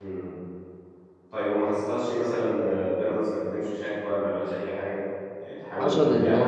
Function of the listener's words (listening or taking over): taking over